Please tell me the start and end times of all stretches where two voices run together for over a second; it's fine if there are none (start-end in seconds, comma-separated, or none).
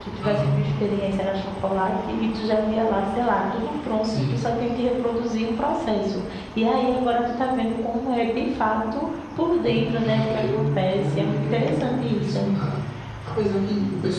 9.6-12.4